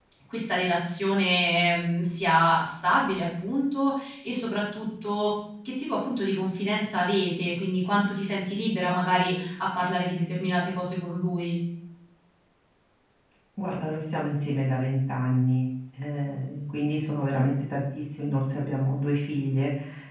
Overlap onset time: none

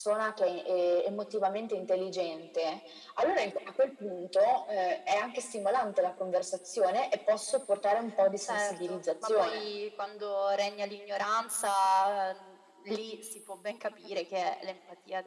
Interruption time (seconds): 8 s

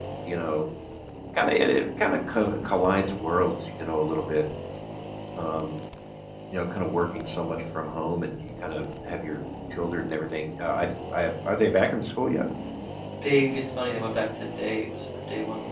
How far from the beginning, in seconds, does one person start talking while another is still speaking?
none

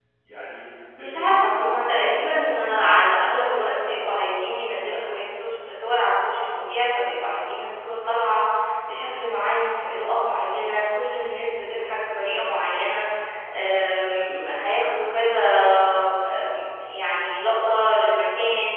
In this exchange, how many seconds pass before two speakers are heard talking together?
1 s

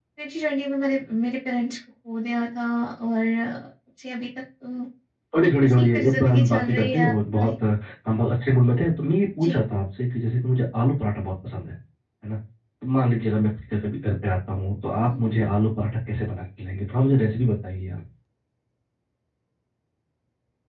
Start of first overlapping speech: 6 s

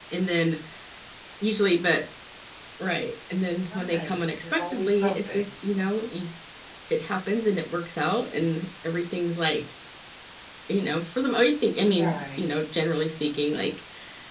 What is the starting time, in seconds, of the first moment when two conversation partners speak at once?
4 s

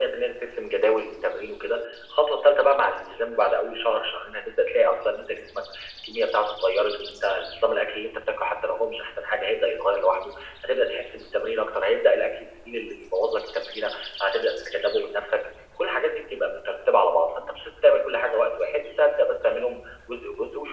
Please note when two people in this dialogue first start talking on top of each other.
none

